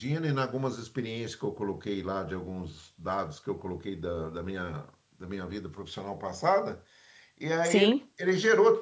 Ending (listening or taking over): listening